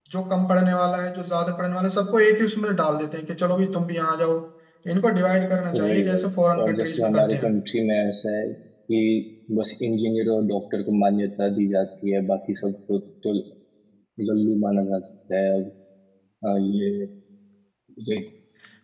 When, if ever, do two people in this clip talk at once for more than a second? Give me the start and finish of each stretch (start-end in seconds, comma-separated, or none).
5.7-7.5